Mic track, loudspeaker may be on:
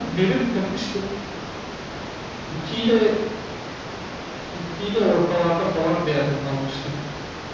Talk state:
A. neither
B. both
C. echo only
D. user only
C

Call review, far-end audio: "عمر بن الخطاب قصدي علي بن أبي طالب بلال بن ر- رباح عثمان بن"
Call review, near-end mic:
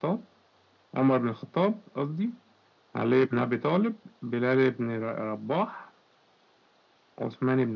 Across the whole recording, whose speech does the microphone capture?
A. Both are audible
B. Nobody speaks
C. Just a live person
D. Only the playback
D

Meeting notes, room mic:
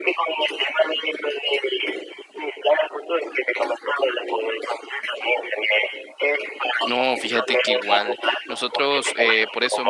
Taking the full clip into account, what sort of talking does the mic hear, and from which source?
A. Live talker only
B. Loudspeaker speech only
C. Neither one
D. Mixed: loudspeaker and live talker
D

